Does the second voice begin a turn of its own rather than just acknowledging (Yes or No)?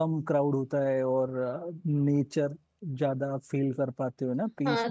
Yes